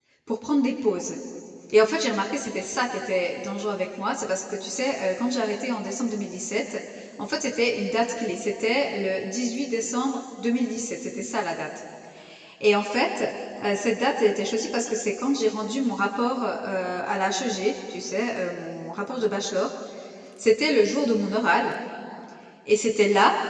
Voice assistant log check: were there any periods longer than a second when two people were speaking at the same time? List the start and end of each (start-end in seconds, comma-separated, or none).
none